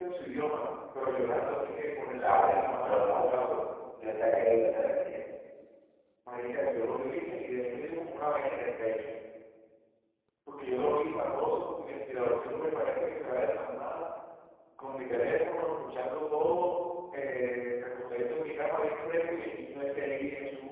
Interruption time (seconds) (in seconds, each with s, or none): 2.2 s